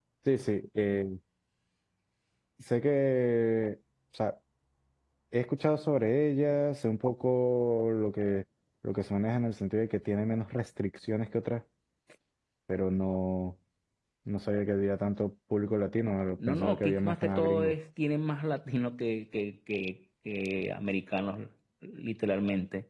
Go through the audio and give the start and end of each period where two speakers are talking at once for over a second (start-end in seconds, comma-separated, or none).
16.5-17.7